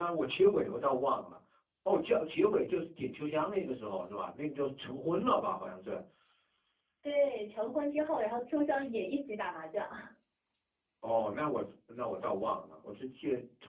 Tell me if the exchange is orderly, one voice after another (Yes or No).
Yes